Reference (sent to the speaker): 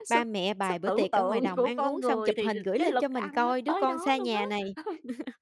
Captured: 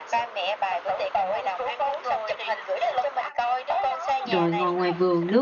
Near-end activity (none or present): present